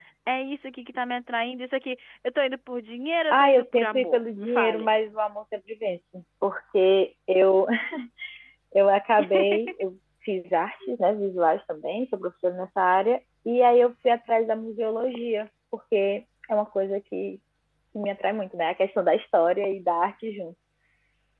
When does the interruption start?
3.3 s

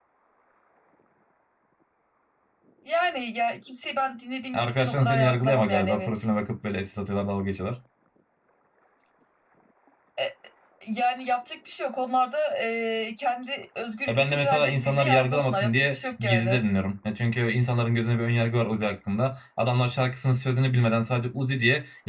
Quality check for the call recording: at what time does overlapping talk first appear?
4.5 s

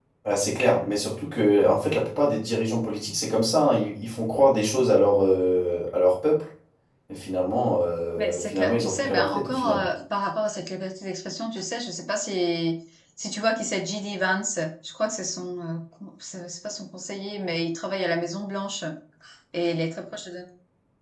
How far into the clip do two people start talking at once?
8.2 s

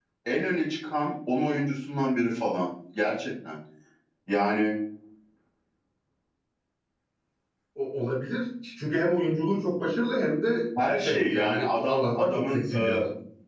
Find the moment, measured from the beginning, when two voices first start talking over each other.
10.8 s

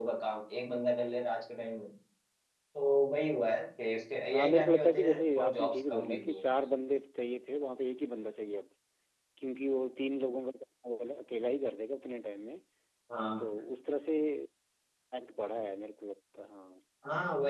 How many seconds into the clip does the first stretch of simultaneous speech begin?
4.3 s

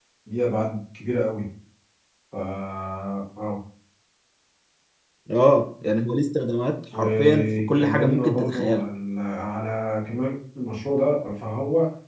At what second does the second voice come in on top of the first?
6.9 s

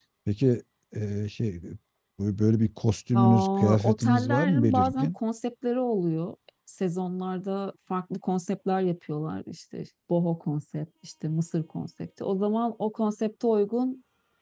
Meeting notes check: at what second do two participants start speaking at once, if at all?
3.1 s

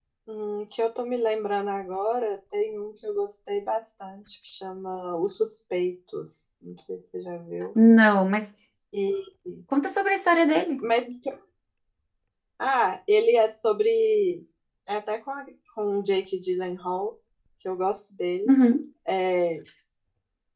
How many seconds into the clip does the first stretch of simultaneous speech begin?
none

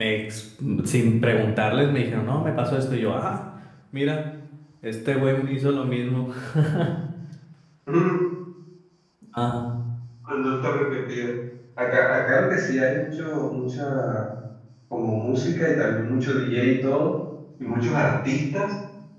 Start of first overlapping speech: none

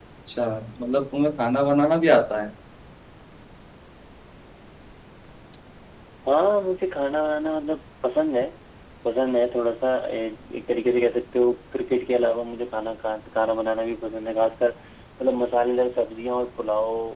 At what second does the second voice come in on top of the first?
none

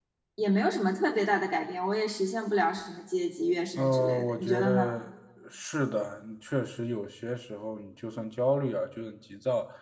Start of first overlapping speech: 3.8 s

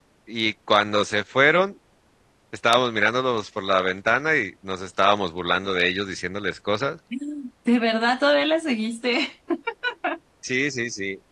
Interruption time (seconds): none

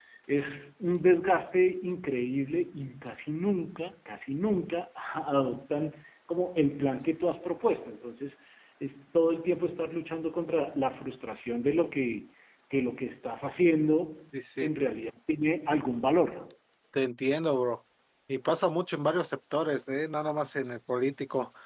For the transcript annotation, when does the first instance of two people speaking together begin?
none

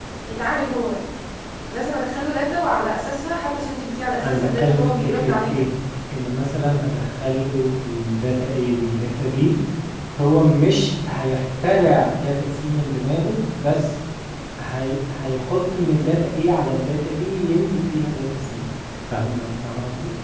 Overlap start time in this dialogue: 4.2 s

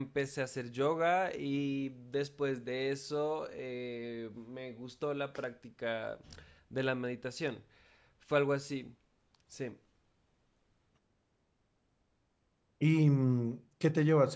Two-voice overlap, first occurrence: none

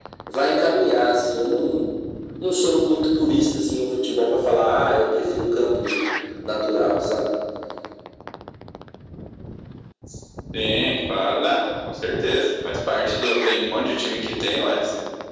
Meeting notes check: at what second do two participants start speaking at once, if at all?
none

